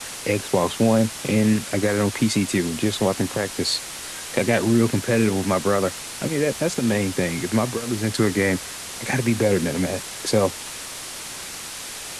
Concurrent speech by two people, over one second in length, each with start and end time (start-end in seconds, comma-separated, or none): none